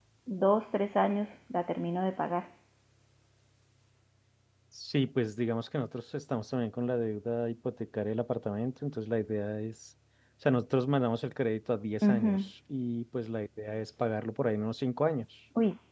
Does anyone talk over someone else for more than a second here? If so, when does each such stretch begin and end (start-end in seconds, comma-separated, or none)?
none